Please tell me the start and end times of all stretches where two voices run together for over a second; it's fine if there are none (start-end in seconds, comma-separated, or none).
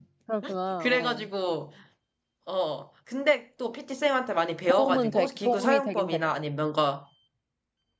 4.7-6.2